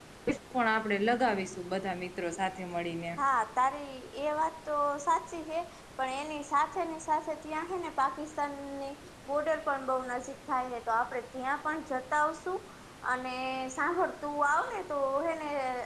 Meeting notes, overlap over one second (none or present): none